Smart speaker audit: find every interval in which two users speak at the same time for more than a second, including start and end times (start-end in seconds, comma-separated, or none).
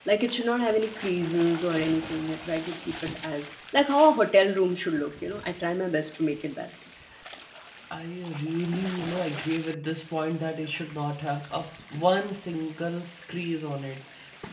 none